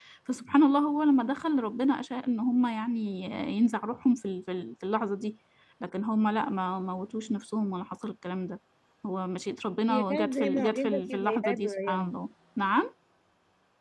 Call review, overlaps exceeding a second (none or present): present